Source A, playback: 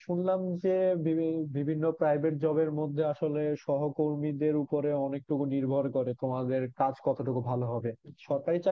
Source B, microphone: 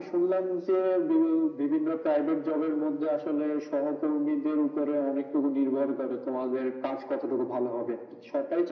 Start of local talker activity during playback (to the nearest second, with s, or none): none